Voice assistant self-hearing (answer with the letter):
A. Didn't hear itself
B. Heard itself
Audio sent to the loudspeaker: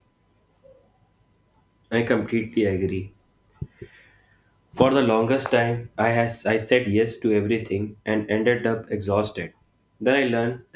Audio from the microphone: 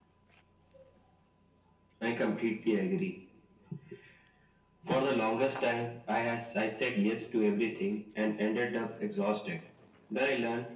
B